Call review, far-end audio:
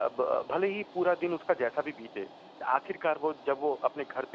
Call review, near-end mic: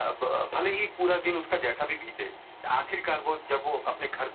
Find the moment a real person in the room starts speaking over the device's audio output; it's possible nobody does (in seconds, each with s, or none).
none